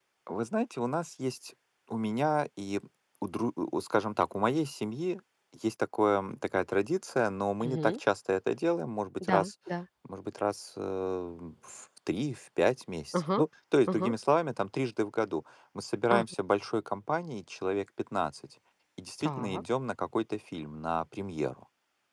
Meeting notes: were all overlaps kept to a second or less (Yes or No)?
Yes